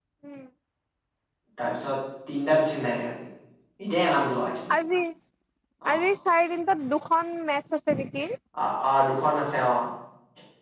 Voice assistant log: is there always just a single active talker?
Yes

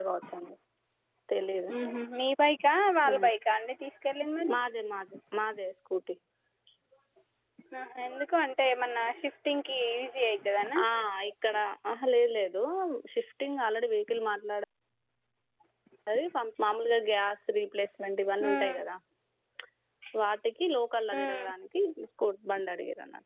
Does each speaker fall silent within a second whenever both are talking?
Yes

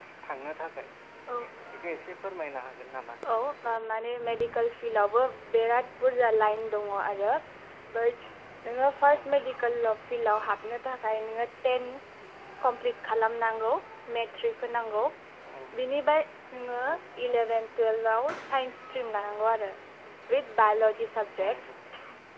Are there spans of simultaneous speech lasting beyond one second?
No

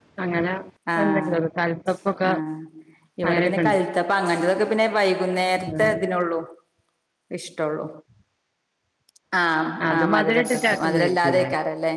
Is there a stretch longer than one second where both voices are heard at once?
Yes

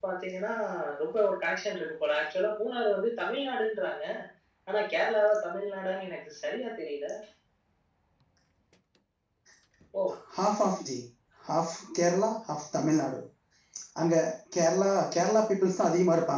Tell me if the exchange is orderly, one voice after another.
Yes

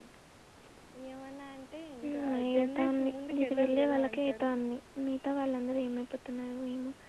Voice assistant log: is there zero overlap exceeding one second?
No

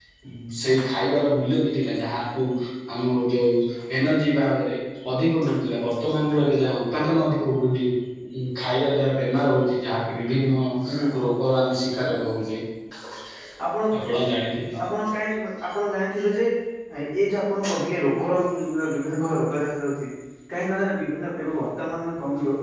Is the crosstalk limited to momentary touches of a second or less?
Yes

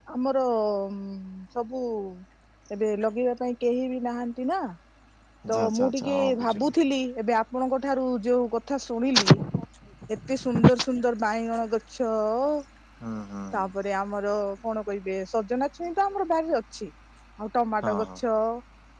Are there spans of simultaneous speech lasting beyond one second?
Yes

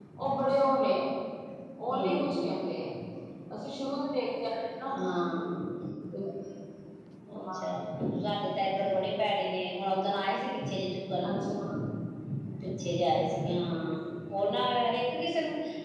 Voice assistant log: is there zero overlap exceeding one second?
Yes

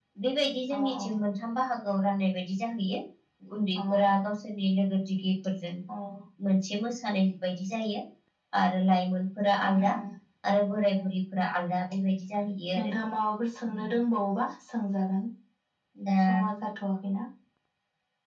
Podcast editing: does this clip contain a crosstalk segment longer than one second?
No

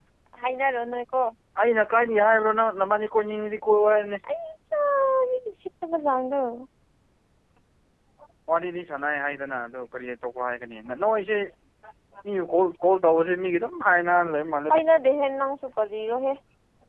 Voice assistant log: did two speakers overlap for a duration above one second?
No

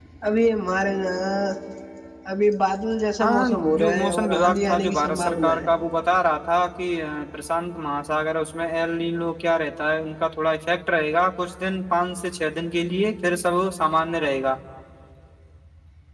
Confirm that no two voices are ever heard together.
No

